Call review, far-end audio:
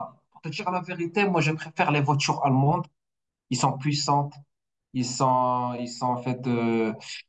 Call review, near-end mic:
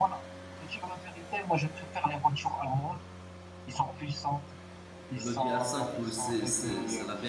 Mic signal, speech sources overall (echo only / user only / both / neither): both